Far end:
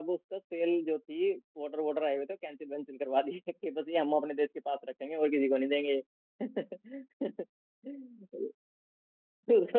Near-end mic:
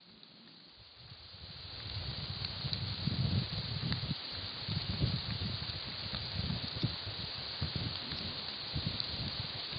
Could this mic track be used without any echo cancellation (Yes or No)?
Yes